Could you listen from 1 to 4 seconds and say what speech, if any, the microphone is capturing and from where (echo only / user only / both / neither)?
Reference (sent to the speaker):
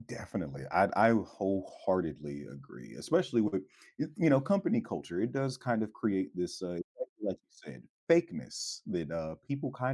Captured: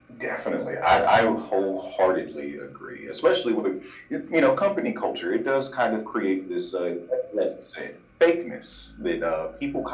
echo only